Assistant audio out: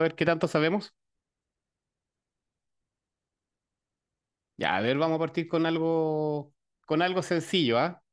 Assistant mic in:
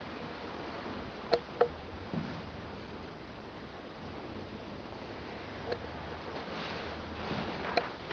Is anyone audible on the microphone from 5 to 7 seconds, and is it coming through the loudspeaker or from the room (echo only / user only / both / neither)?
neither